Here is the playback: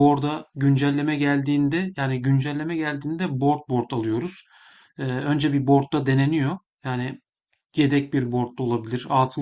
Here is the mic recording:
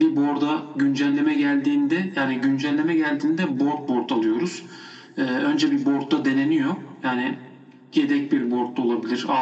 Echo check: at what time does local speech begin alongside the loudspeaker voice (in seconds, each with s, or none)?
none